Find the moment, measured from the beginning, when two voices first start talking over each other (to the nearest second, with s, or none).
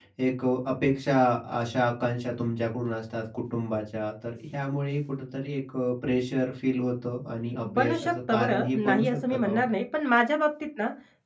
8 s